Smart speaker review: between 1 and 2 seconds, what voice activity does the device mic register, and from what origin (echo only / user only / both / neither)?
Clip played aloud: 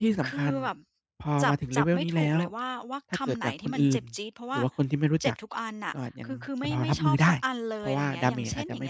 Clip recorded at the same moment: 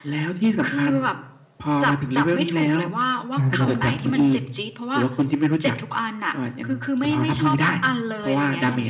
echo only